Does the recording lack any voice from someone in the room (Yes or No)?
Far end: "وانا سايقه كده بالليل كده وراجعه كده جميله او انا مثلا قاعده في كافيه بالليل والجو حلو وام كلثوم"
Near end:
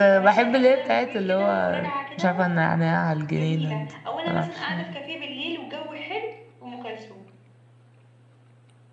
No